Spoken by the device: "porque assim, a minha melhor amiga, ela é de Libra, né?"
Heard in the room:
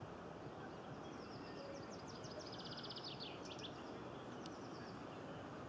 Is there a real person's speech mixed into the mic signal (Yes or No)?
No